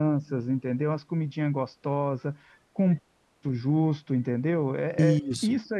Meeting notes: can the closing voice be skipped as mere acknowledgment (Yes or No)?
Yes